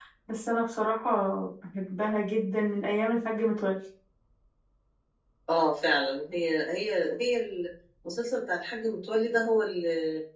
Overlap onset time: none

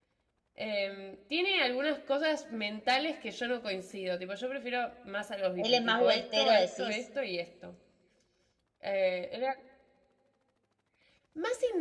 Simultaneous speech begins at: 6 s

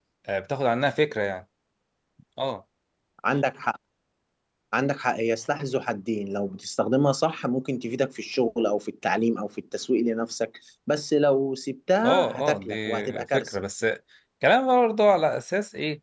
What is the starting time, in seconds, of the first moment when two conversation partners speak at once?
12 s

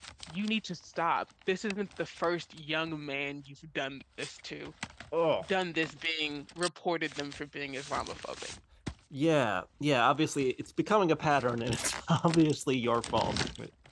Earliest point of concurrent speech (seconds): none

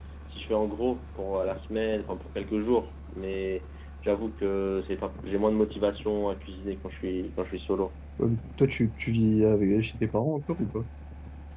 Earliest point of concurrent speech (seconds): none

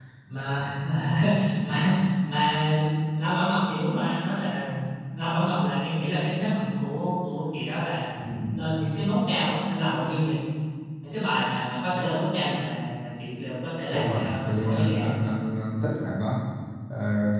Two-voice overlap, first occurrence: 14 s

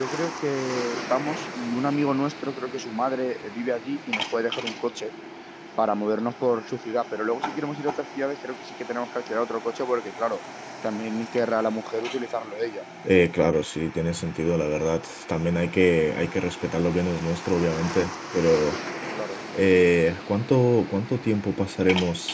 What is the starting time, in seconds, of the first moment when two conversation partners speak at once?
none

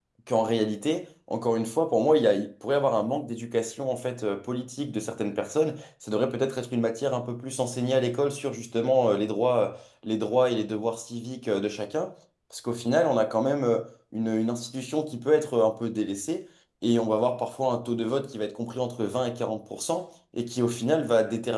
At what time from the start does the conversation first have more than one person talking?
none

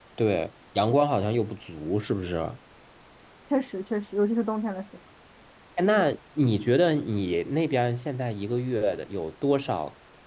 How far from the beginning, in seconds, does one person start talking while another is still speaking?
none

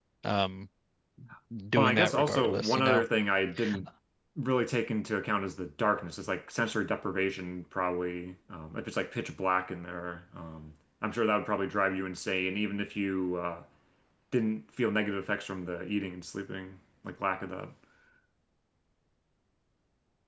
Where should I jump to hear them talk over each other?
2 s

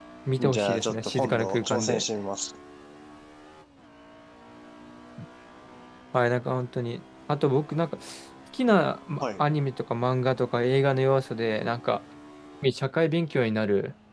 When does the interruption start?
1 s

